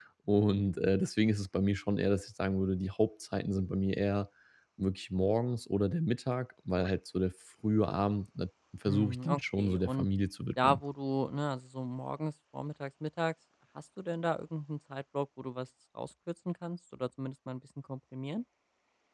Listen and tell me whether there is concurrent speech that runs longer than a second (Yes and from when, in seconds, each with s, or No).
Yes, from 8.8 s